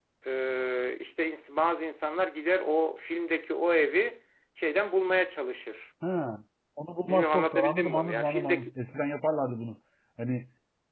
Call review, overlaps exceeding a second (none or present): present